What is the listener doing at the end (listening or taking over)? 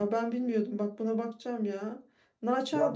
taking over